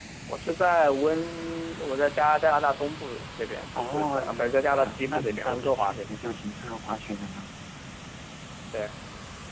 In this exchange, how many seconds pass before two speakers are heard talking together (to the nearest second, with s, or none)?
4 s